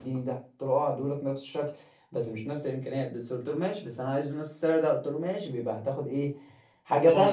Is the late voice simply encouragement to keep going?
No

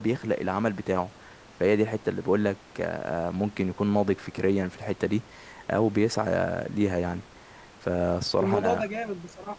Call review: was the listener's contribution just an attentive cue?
No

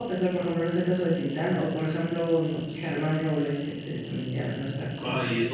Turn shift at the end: Yes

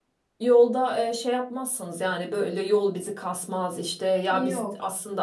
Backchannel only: Yes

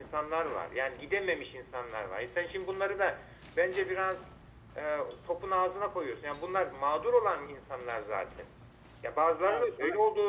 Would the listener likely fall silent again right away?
Yes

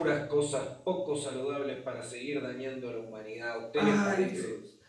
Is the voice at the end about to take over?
Yes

